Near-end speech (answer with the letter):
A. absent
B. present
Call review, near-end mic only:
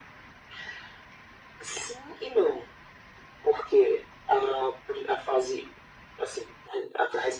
A